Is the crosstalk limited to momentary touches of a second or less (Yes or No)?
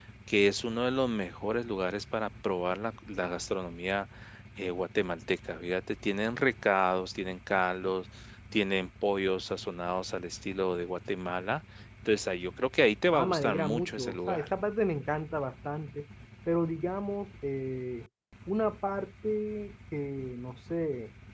No